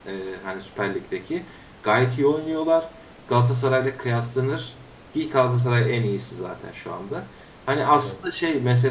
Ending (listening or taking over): listening